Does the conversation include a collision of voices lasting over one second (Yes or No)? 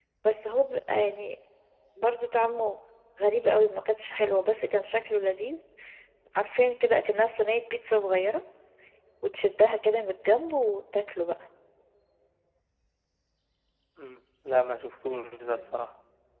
No